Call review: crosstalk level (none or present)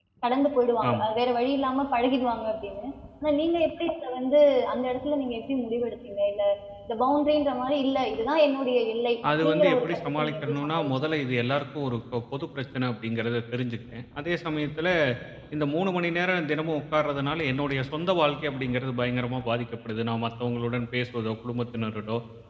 present